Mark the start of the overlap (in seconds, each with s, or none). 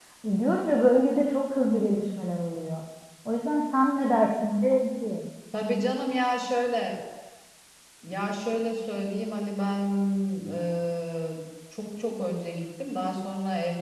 none